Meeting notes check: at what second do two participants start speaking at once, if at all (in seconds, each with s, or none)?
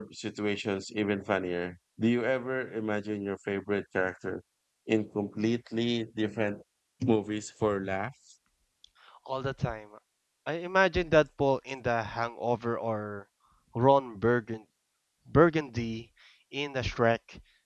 none